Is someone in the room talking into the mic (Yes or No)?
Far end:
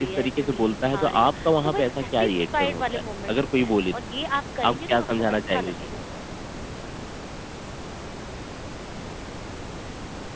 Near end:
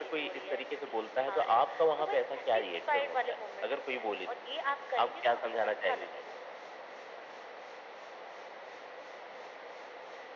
No